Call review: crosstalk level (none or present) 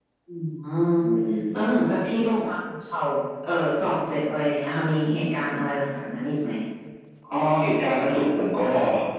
none